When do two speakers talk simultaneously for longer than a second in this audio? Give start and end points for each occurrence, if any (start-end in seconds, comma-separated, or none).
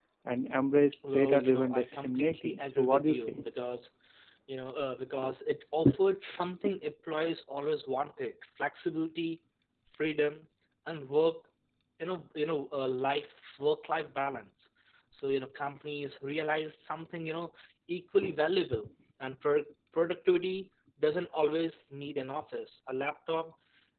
1.1-3.4